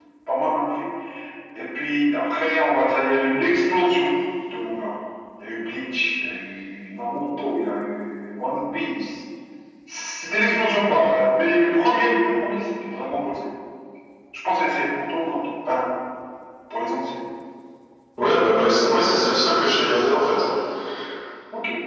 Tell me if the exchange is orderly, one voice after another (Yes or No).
Yes